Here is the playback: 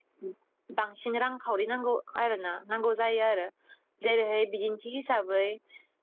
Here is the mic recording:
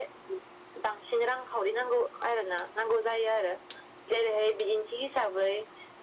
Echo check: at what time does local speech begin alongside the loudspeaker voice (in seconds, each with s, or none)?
none